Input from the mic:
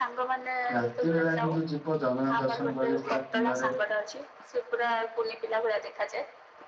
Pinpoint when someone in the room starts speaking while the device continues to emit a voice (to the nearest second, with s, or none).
1 s